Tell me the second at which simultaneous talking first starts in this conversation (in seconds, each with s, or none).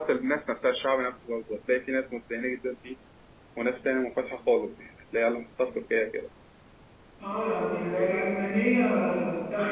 none